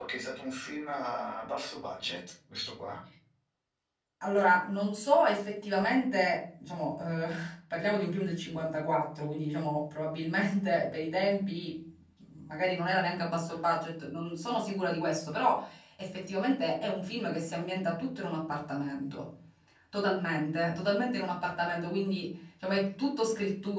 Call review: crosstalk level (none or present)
none